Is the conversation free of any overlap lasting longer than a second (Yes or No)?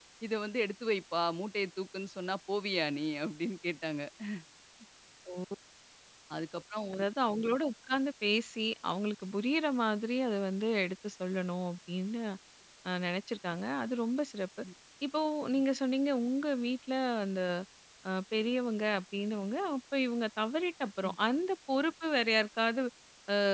Yes